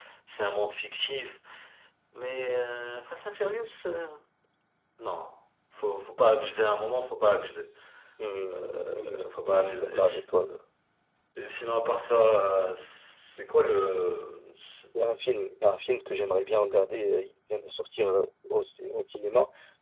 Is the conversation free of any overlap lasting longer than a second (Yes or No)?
No